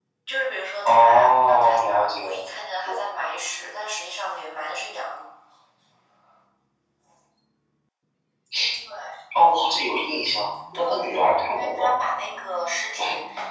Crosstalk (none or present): present